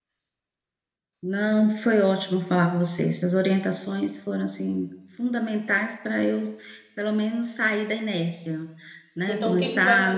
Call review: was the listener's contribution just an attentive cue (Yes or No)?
No